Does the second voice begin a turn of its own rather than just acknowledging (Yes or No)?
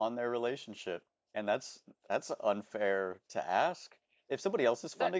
No